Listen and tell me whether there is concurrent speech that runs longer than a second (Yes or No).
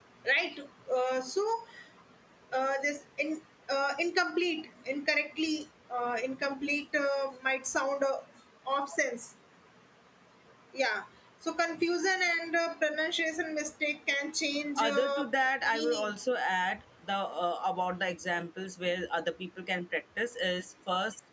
No